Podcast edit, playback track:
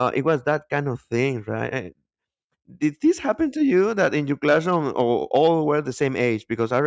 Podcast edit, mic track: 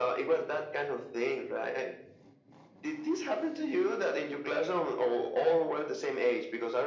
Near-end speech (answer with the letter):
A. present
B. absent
B